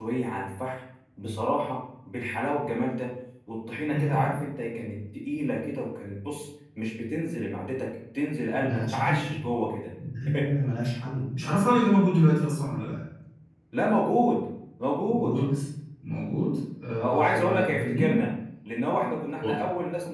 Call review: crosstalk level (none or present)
present